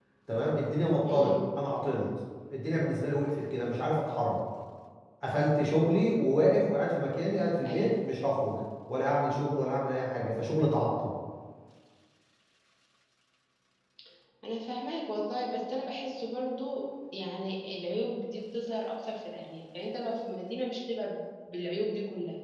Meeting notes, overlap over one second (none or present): none